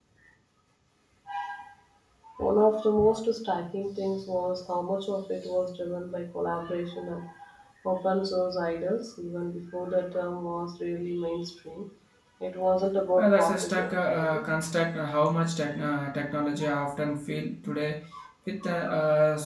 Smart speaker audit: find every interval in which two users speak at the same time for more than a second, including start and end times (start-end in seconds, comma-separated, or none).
13.2-14.5